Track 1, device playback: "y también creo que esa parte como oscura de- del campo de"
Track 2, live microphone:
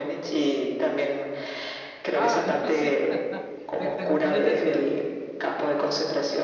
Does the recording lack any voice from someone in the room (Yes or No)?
No